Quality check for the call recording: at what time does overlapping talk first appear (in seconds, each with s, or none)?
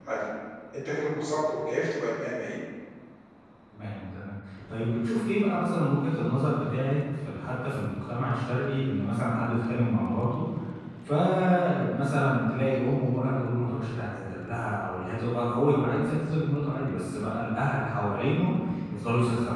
none